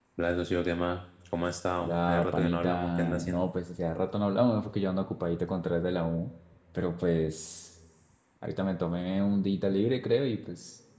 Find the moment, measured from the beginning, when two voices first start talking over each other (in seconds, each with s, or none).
1.8 s